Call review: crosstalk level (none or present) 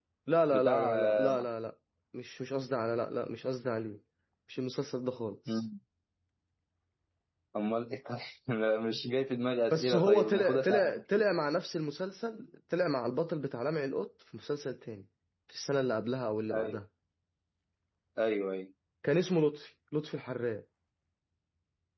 present